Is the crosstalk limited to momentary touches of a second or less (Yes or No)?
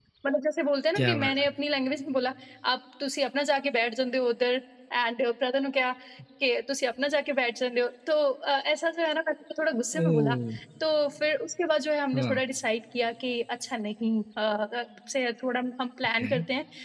Yes